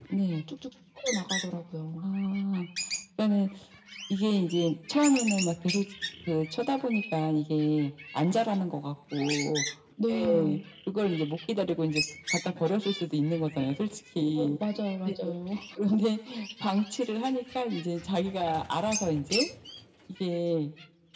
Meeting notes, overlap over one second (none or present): none